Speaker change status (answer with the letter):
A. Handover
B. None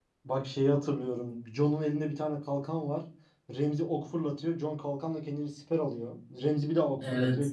B